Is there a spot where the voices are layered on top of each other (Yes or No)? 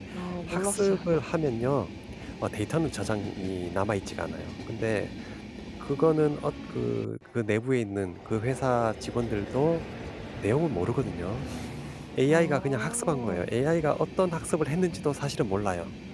Yes